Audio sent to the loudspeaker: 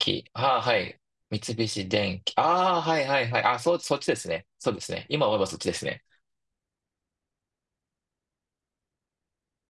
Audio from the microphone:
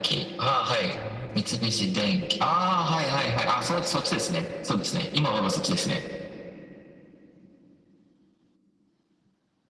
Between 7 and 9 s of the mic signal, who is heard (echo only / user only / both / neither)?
neither